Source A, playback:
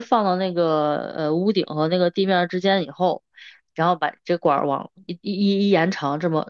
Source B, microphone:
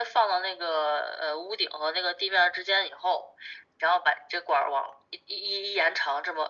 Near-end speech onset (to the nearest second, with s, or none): none